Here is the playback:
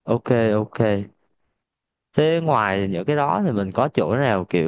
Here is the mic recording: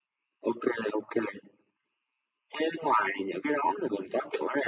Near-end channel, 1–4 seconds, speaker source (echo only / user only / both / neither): echo only